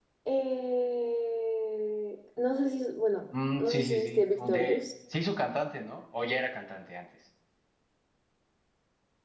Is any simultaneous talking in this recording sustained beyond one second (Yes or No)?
Yes